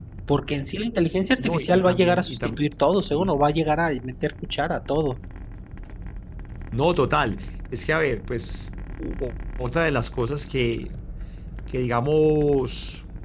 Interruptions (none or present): present